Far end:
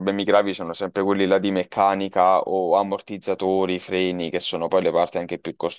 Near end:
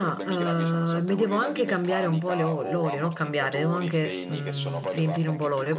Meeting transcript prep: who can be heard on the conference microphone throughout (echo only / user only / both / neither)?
both